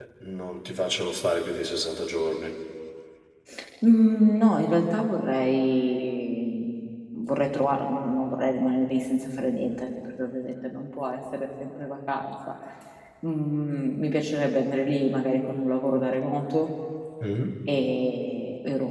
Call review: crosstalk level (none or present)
none